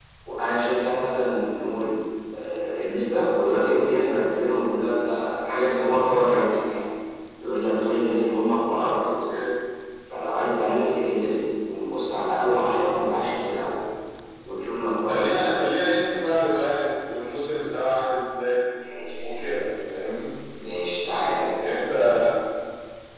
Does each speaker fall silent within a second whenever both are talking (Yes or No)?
Yes